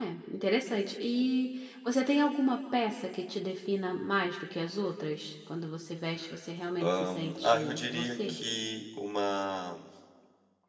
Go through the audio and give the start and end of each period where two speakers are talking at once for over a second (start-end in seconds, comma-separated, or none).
6.8-8.4